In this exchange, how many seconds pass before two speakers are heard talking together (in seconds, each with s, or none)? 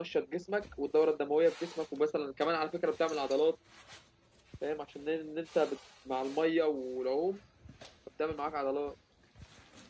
none